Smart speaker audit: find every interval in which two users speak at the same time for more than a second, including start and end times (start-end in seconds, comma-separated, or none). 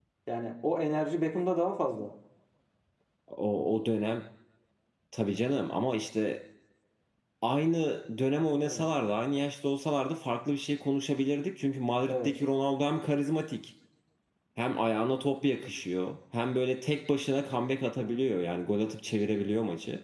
none